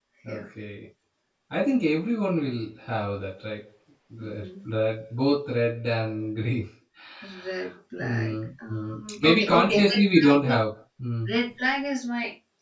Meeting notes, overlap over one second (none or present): present